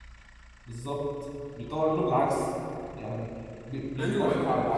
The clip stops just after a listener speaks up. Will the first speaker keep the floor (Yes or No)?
No